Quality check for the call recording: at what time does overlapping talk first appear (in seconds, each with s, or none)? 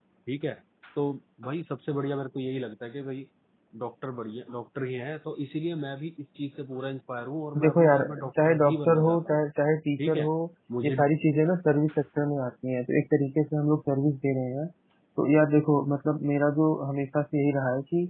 7.6 s